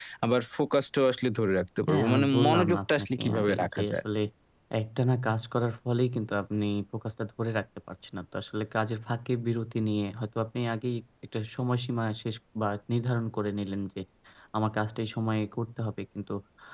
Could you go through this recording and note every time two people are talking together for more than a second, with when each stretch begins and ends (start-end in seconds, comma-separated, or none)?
1.9-4.0